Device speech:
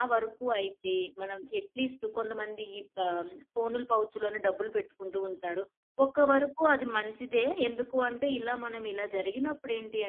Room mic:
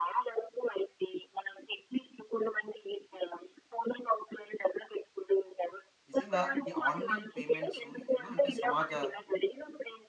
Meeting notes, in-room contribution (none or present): present